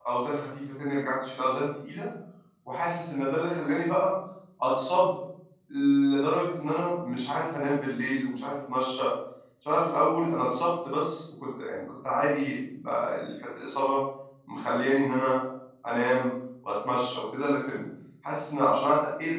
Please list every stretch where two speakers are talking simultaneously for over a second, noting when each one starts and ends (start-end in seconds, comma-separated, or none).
none